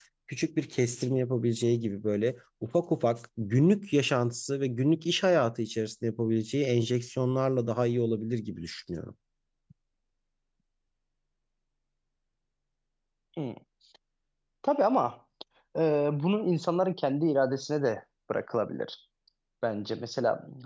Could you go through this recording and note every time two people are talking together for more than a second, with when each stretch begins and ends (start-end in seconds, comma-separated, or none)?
none